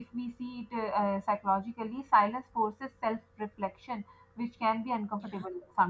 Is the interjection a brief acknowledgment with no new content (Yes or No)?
Yes